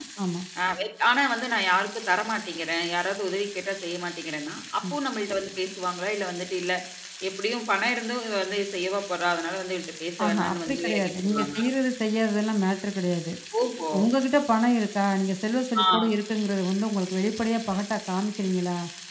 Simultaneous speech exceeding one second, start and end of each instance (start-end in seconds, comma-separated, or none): 10.2-11.7